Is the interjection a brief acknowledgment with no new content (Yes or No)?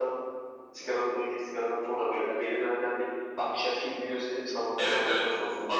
No